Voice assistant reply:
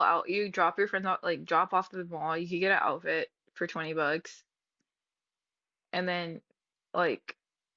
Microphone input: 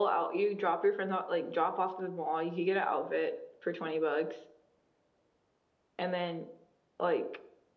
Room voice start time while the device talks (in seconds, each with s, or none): none